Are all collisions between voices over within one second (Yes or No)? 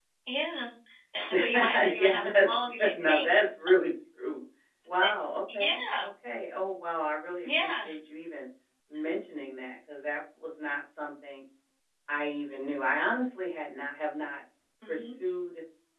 No